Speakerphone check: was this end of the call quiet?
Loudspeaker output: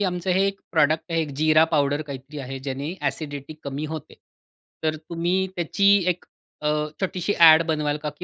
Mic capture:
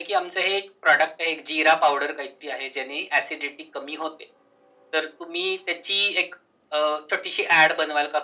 Yes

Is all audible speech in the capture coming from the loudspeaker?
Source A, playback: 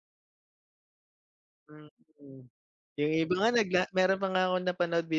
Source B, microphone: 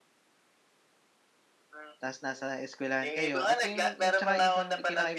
No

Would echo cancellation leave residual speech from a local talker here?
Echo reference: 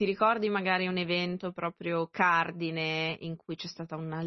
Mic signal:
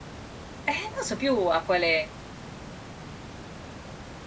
Yes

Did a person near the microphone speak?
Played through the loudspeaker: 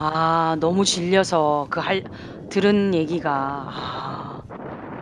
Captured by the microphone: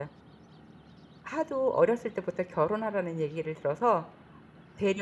Yes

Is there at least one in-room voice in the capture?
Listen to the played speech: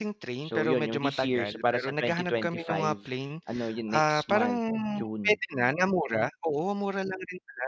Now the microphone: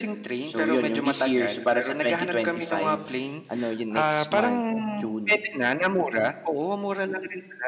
No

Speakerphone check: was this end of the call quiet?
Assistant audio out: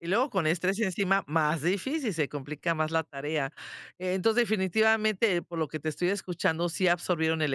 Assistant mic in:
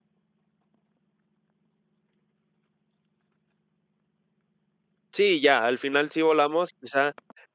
No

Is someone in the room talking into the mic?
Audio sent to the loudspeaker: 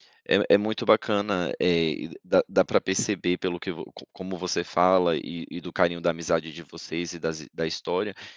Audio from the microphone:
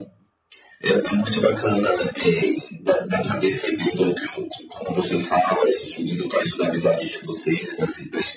No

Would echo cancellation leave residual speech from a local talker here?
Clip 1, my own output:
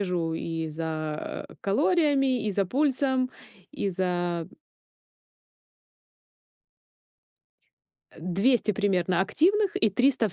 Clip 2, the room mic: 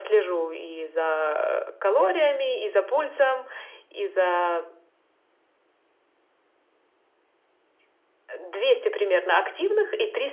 No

